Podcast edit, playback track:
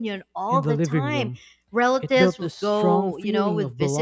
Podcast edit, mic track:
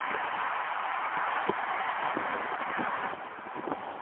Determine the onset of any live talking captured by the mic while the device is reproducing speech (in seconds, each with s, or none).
none